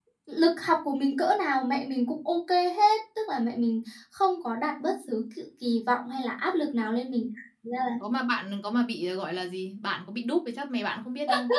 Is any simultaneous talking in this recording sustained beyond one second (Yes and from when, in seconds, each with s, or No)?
No